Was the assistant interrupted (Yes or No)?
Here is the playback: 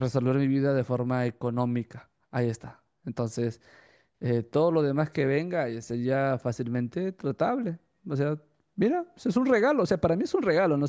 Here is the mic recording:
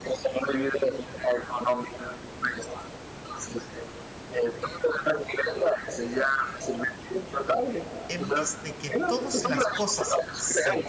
Yes